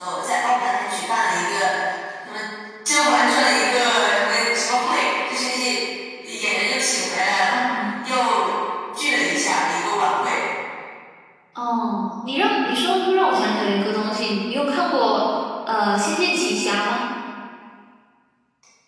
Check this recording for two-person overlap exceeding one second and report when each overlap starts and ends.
none

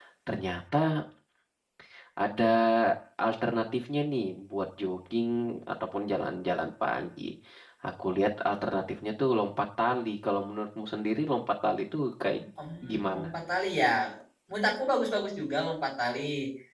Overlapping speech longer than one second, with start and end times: none

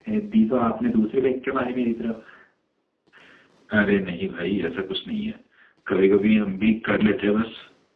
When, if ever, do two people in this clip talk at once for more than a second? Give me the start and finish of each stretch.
none

